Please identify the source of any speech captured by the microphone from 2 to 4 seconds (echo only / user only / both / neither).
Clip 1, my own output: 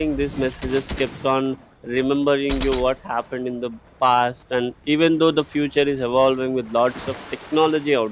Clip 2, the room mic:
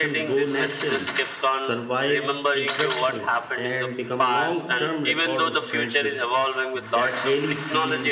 both